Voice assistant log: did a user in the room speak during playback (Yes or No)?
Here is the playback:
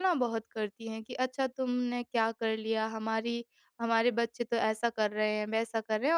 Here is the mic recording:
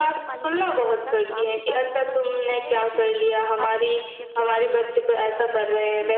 Yes